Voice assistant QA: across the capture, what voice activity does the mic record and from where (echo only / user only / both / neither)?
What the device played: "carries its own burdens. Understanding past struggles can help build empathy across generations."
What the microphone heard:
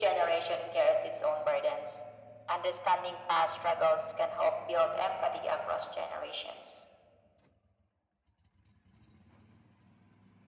echo only